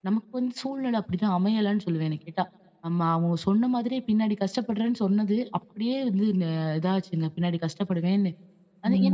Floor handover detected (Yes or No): Yes